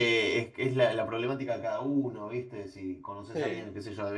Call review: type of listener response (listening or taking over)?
listening